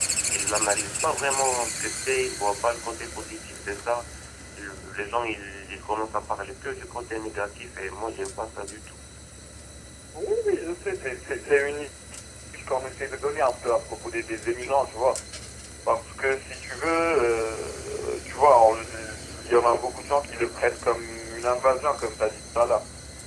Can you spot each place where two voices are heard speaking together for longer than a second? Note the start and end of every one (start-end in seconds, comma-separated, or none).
none